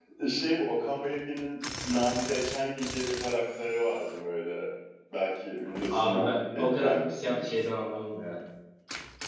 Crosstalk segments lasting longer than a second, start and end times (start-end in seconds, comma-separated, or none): 5.9-7.5